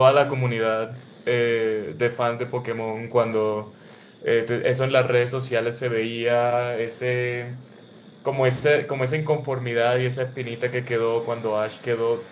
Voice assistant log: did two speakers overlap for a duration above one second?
No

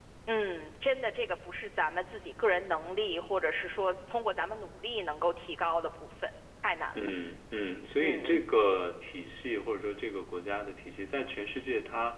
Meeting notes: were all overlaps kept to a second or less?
Yes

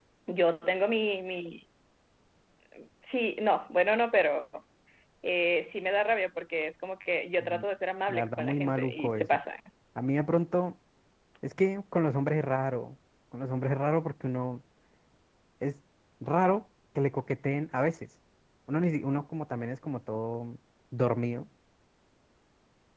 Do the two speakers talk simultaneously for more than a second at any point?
Yes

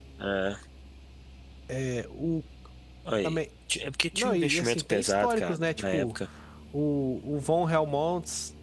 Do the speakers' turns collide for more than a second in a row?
Yes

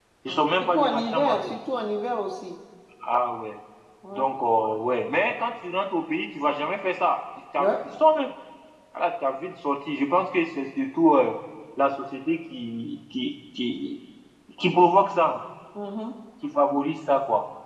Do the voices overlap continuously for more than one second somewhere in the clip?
Yes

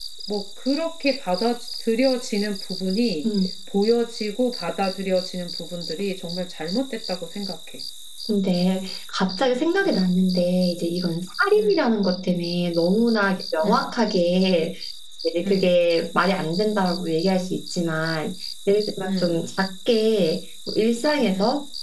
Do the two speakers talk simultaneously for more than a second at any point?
No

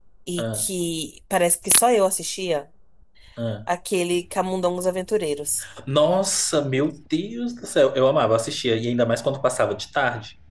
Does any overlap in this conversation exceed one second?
No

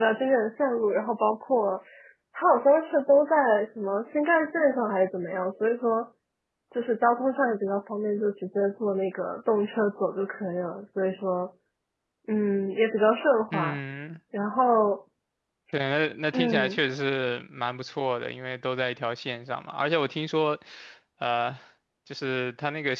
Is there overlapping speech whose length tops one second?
No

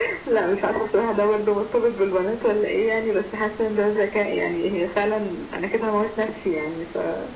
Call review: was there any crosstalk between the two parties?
No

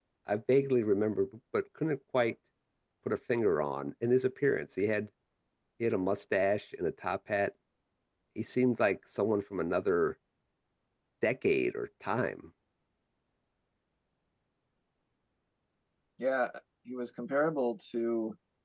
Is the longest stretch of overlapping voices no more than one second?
Yes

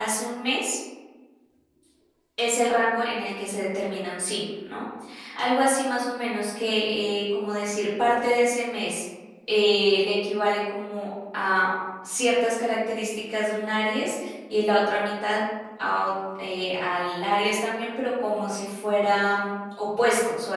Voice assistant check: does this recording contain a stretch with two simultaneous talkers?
No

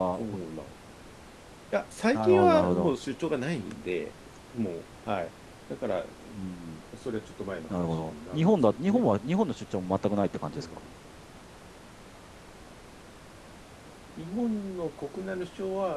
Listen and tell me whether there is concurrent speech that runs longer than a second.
Yes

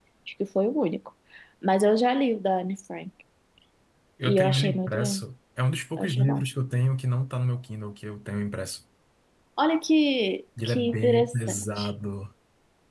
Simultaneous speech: Yes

